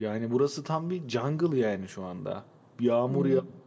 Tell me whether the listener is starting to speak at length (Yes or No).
No